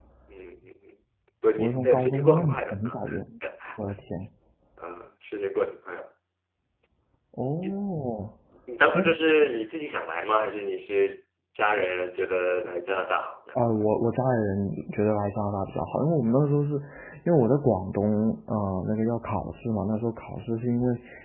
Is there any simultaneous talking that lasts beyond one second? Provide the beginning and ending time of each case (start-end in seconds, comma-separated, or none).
1.6-3.0